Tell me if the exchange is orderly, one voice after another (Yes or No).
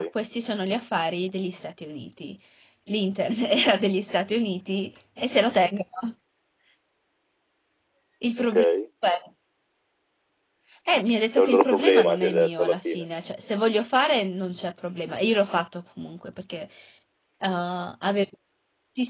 No